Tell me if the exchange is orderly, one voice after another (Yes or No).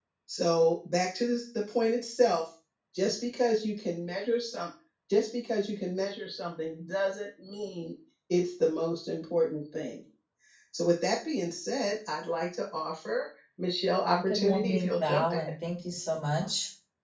No